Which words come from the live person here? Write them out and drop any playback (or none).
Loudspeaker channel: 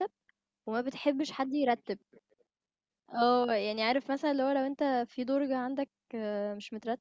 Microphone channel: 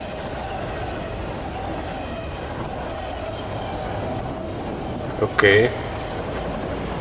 أوكي